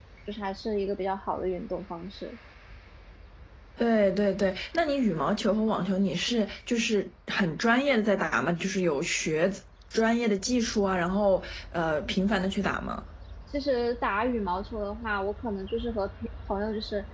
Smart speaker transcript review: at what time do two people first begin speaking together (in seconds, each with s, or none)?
none